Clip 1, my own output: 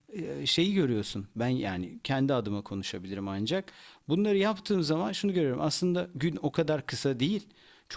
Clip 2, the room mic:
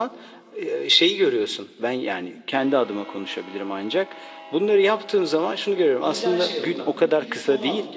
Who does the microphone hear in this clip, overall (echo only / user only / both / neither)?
both